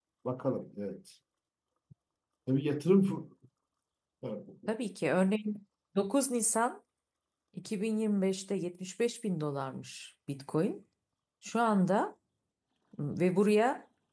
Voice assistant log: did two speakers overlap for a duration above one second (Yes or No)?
No